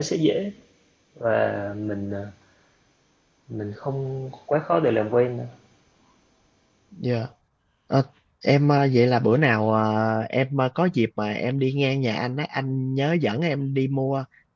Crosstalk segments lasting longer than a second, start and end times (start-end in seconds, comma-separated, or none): none